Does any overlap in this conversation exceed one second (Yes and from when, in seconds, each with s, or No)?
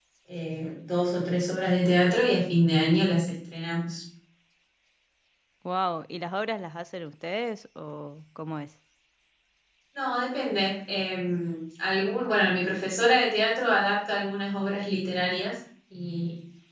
No